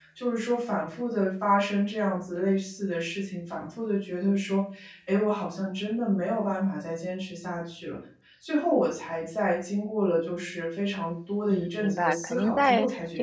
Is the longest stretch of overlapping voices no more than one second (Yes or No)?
No